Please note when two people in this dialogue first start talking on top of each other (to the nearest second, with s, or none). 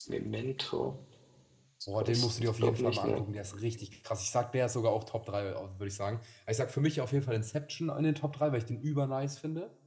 2 s